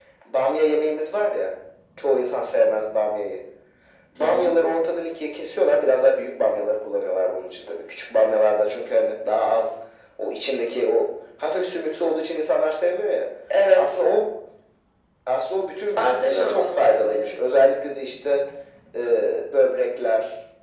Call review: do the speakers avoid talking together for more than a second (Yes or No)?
No